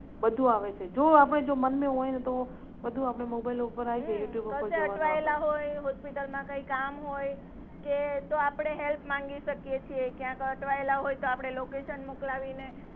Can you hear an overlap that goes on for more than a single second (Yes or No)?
Yes